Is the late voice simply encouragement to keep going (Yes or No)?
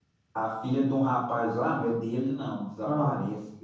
Yes